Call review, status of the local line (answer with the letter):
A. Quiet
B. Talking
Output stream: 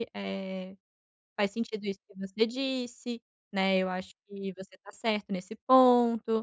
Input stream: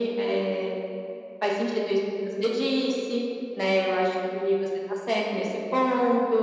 A